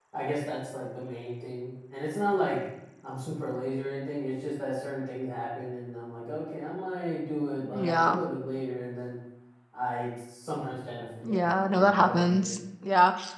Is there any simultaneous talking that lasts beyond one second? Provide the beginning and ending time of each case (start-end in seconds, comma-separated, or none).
11.2-12.5